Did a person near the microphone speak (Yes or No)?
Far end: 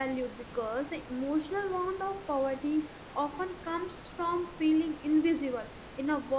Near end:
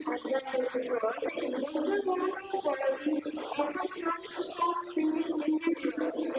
No